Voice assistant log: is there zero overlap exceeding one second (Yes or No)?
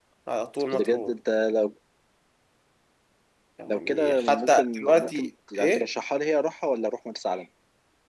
No